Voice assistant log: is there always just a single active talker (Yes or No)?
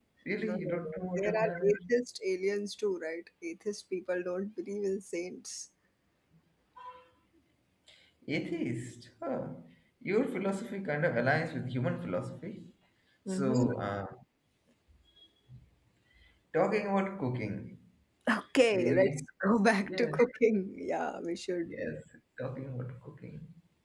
No